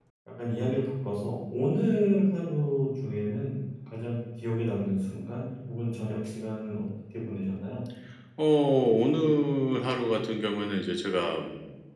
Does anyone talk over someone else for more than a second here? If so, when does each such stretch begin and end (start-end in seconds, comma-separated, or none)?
none